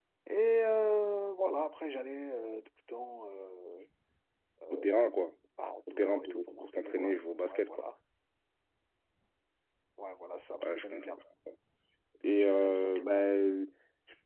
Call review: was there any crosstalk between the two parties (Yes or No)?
Yes